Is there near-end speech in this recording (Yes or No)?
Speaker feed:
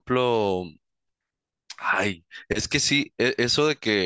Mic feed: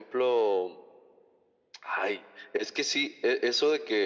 No